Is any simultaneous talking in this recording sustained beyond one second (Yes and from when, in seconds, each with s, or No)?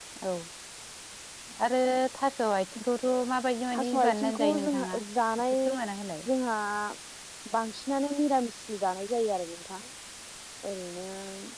Yes, from 3.7 s